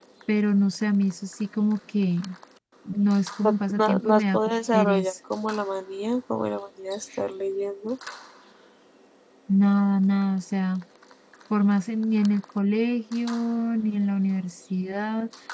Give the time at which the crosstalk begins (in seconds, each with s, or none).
3.4 s